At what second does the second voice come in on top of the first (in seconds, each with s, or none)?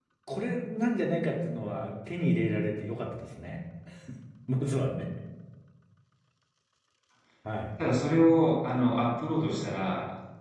none